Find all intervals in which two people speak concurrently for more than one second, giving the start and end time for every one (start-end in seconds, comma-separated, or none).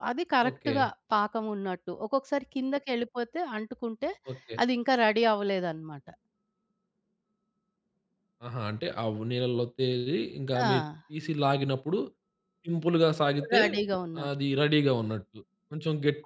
none